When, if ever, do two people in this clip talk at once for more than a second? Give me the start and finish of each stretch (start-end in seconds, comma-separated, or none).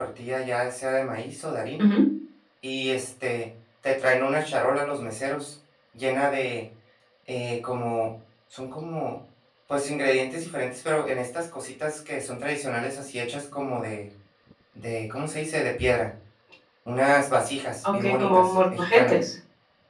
17.9-19.2